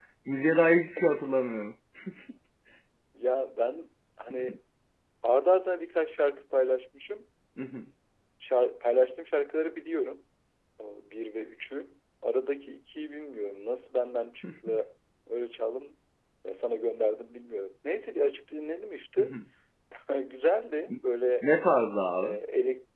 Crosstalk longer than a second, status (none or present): none